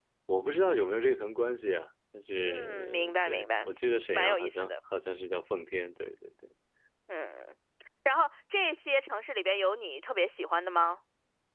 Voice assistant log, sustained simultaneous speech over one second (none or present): present